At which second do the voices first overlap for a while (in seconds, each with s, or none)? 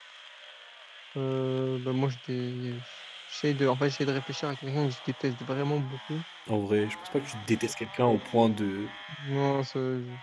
none